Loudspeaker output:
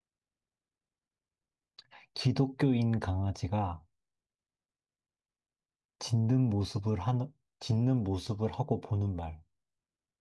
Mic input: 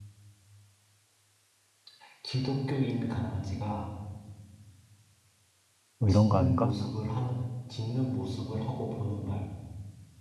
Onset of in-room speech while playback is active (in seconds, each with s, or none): 6.0 s